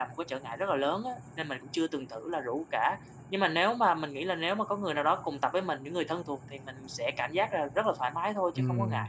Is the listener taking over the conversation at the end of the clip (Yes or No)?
Yes